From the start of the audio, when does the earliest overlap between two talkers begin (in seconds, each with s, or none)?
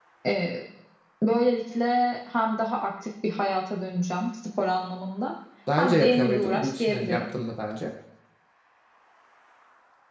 5.8 s